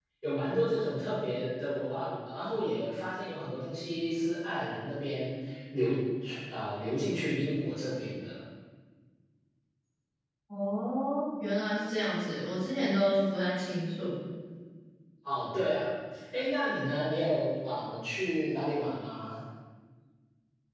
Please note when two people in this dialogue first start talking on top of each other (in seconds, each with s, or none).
none